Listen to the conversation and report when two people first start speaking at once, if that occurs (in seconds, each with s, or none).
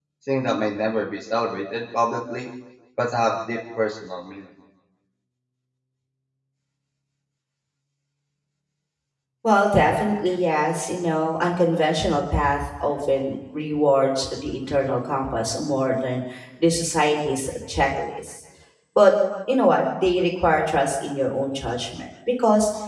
none